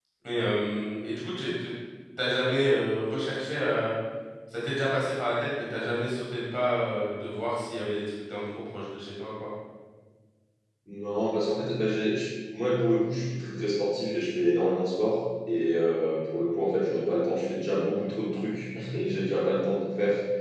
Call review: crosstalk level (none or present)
none